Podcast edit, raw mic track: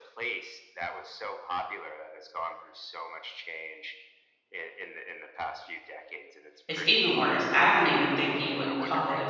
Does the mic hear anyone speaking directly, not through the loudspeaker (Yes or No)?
Yes